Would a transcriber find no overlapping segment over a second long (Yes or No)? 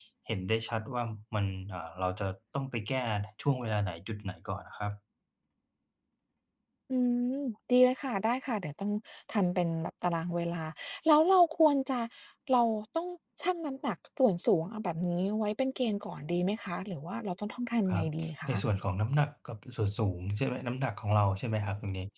Yes